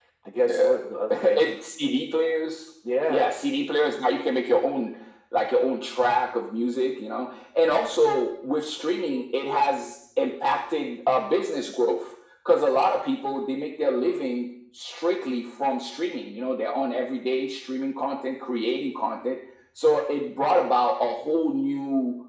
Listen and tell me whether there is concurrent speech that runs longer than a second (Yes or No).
No